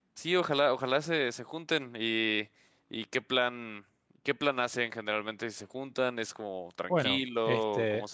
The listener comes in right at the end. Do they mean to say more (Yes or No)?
Yes